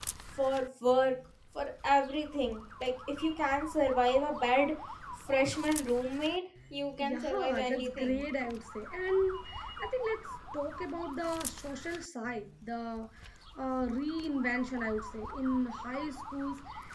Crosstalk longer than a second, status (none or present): present